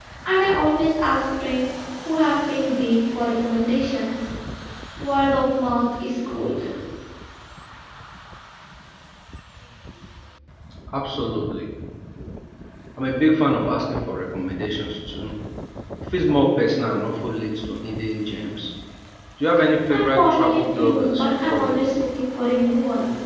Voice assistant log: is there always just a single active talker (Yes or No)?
No